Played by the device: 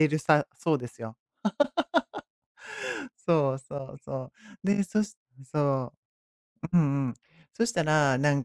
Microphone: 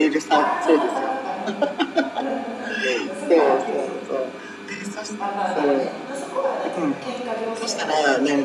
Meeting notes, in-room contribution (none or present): present